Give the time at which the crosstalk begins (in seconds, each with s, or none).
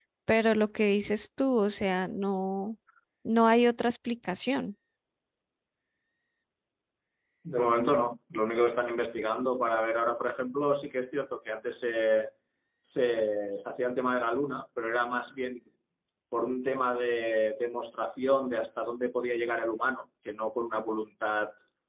none